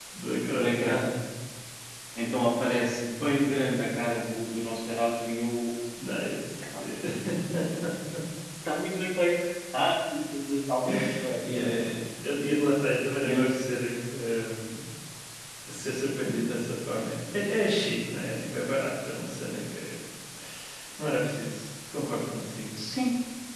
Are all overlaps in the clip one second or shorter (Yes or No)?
Yes